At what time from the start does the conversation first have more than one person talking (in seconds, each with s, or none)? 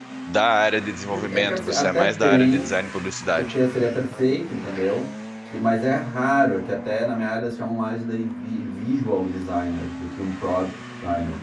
1.3 s